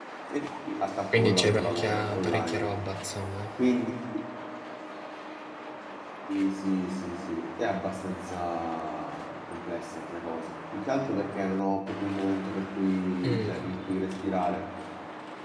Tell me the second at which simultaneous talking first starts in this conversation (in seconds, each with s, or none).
1.1 s